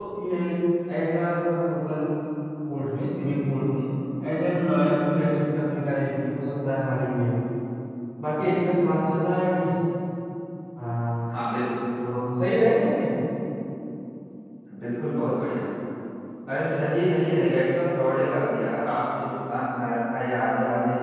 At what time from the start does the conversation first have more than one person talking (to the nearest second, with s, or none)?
none